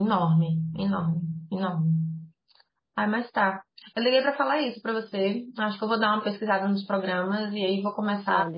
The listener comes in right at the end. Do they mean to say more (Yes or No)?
Yes